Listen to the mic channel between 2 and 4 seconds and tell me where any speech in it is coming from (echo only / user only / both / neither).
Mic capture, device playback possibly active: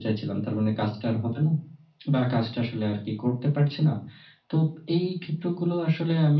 echo only